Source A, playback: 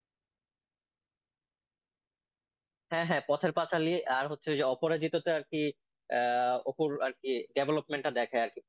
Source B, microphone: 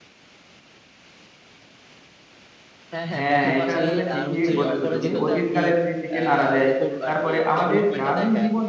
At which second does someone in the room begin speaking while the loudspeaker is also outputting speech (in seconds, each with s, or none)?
3.2 s